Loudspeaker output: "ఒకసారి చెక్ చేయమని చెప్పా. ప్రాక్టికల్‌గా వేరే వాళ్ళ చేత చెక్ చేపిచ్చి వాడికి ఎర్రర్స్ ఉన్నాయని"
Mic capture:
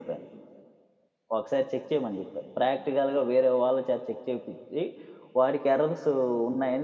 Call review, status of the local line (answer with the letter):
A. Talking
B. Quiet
B